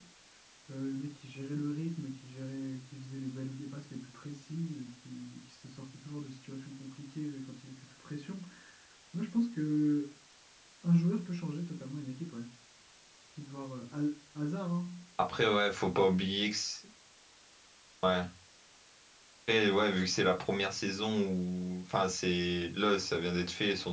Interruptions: none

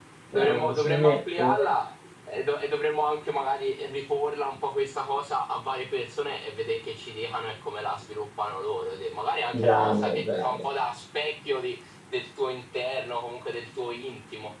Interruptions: present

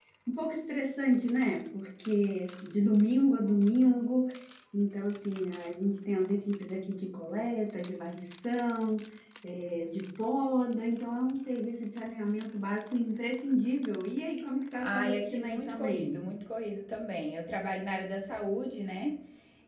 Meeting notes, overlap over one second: present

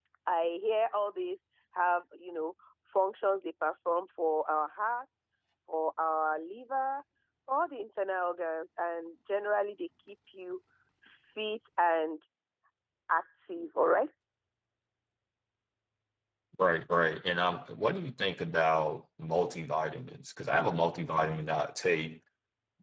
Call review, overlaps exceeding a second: none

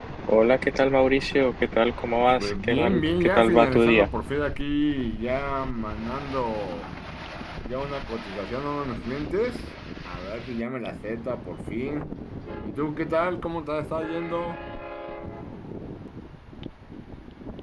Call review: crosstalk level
present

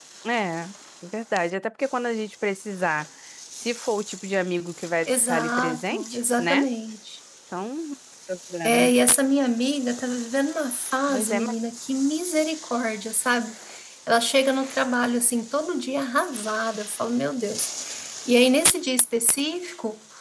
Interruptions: present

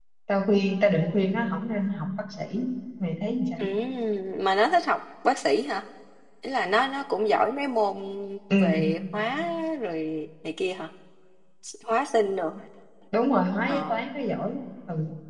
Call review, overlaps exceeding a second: none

